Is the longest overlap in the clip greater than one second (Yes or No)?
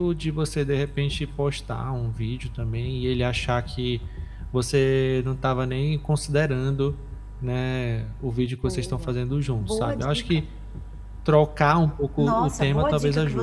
Yes